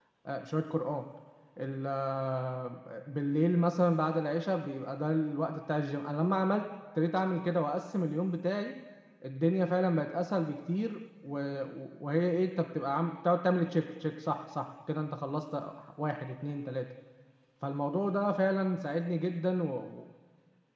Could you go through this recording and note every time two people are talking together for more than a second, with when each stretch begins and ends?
none

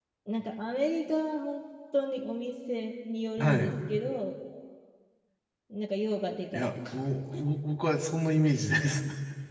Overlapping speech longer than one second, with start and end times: none

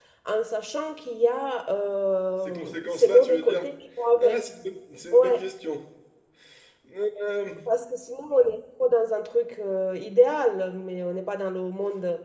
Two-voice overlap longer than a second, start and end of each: 2.4-3.7

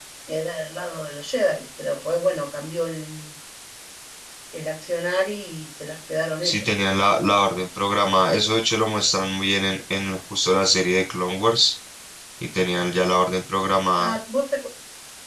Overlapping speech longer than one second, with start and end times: none

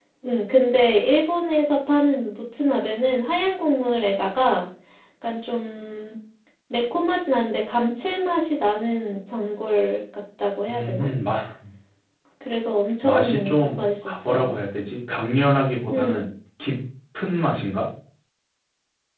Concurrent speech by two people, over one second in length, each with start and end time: 13.0-14.5

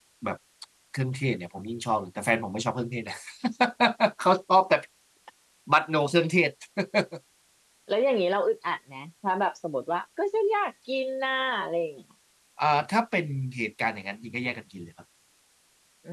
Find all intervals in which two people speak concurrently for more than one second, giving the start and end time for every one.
none

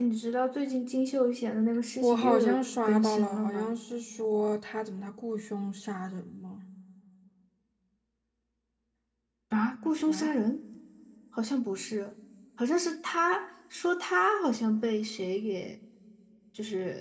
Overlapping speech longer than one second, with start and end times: 2.0-3.8

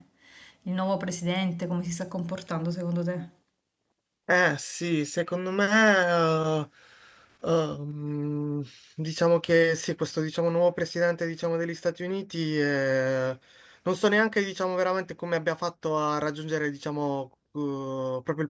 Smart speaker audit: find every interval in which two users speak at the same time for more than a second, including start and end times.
none

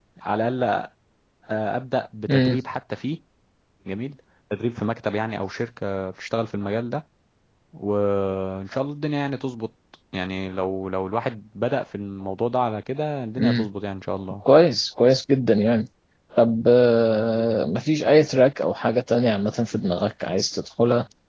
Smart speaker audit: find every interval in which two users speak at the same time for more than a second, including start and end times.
none

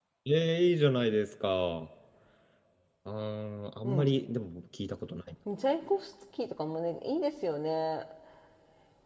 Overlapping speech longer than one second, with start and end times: none

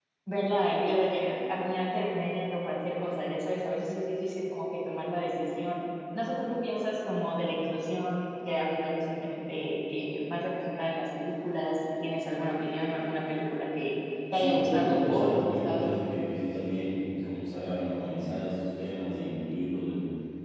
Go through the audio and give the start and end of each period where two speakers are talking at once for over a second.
14.3-15.9

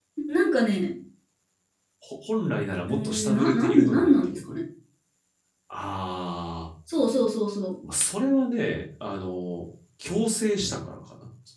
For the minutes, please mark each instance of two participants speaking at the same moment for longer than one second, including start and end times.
2.9-4.4

